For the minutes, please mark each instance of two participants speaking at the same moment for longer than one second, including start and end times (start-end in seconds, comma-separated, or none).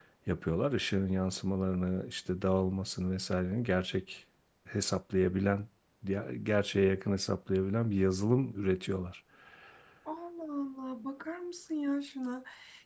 none